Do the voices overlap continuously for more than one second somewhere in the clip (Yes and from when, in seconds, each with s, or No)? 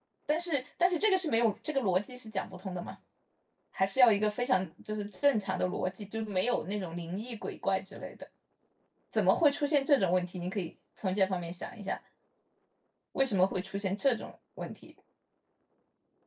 No